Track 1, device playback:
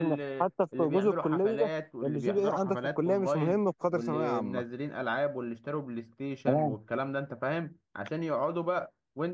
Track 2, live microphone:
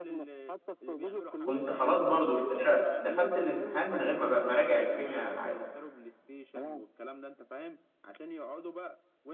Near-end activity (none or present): present